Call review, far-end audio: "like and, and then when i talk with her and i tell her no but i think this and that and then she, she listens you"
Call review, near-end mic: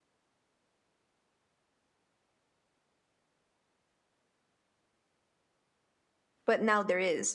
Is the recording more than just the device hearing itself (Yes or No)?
Yes